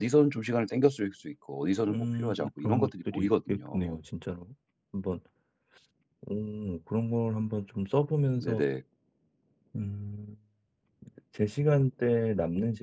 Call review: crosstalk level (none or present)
present